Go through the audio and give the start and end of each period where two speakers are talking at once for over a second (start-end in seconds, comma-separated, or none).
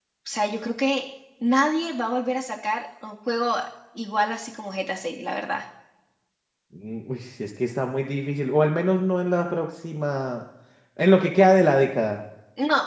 none